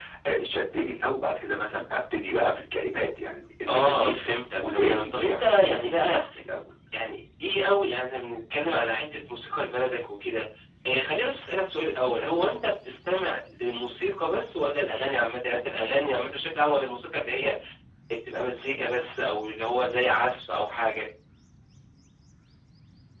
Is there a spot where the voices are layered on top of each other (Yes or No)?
Yes